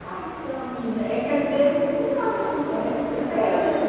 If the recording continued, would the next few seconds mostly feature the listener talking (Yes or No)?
No